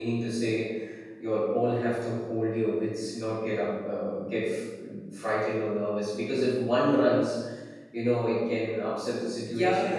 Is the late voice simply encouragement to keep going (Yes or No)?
No